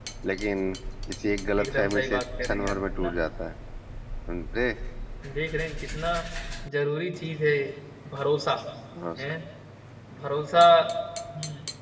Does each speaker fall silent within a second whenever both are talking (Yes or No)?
No